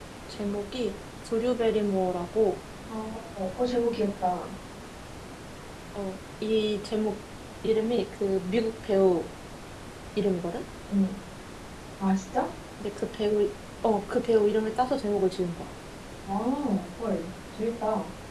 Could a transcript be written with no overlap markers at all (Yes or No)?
Yes